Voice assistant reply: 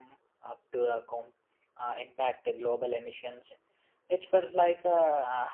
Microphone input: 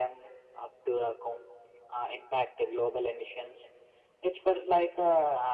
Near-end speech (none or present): none